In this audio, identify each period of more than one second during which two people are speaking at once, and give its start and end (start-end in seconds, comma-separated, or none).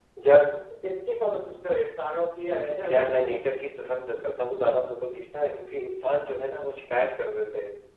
none